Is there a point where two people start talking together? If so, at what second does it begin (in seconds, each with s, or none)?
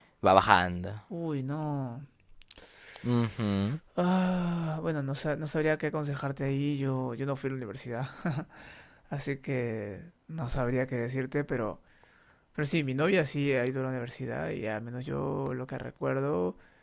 none